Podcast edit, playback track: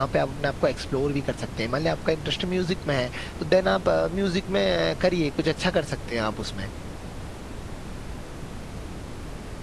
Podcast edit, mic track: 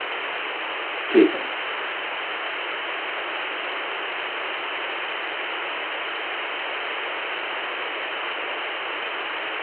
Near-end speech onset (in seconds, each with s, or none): 1.1 s